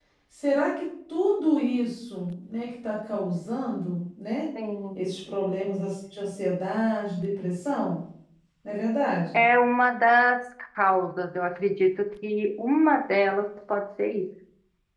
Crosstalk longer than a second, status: none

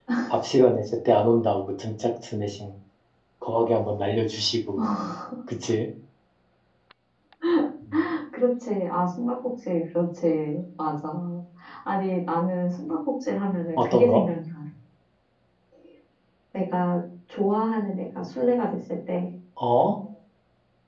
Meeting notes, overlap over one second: none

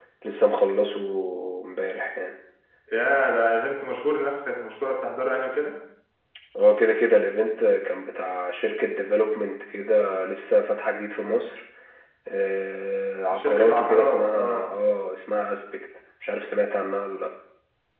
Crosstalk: present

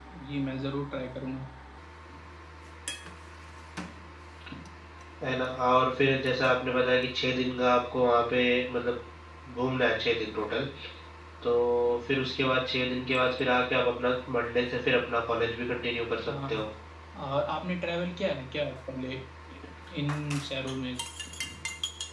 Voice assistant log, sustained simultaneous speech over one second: none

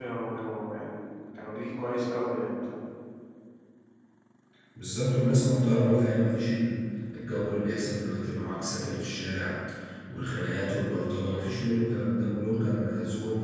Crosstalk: none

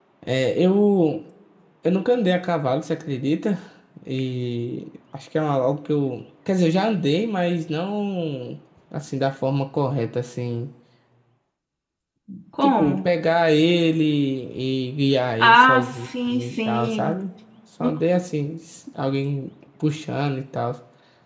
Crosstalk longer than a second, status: present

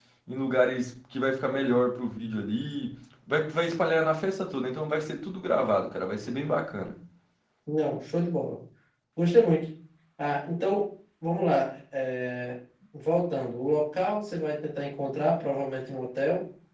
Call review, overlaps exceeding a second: none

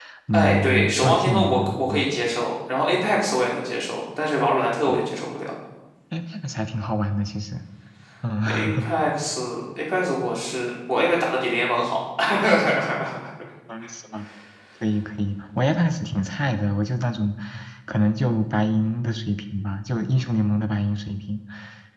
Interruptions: present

